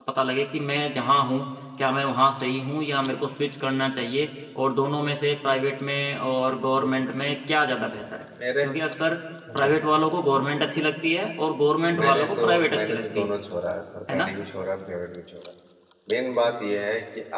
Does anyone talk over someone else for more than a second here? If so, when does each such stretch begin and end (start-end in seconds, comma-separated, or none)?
12.0-13.3